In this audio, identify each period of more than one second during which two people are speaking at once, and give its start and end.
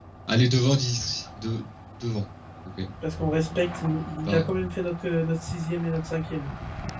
none

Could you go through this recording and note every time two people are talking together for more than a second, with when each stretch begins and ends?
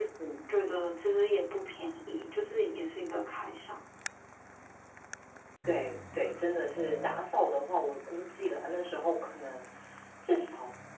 none

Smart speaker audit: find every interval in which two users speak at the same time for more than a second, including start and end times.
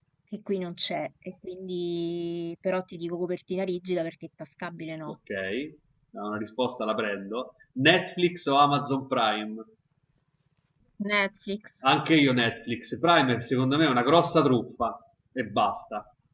none

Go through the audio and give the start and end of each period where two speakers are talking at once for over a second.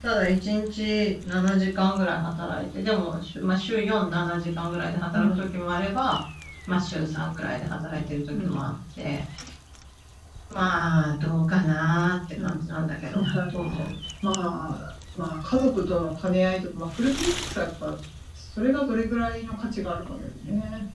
none

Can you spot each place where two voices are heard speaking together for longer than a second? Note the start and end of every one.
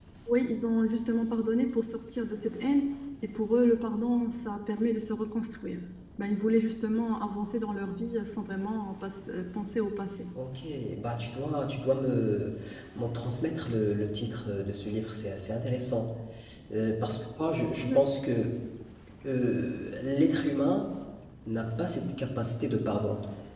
none

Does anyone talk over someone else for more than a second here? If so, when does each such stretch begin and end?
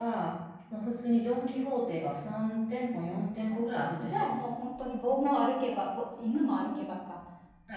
none

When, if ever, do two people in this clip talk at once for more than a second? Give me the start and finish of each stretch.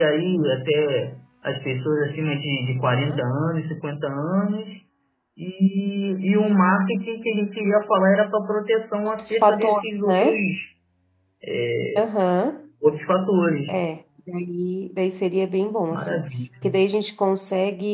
9.1-10.4

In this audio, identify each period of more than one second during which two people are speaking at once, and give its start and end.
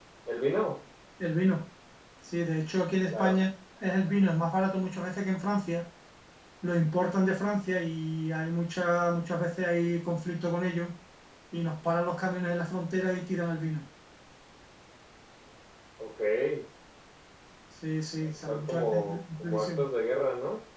18.2-19.9

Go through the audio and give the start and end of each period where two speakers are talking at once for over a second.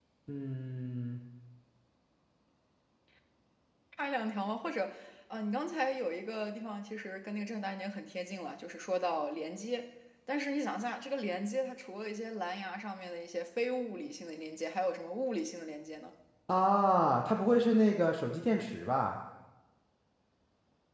none

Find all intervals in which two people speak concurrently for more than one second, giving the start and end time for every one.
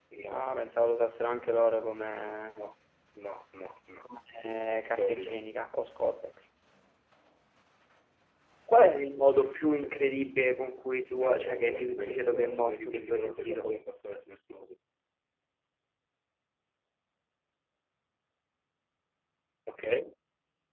11.2-13.7

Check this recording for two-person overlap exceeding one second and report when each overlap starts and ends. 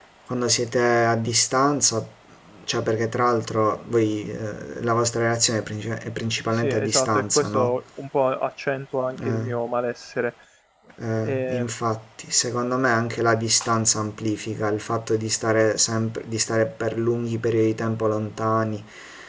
6.5-7.8

